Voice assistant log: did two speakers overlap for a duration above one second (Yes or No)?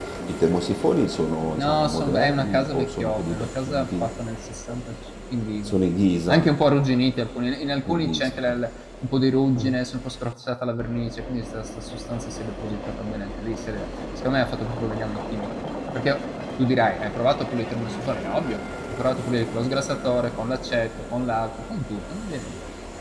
Yes